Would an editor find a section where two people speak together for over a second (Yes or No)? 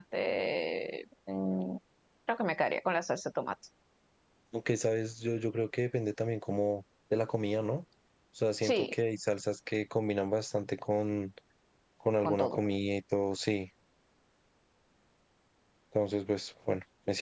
No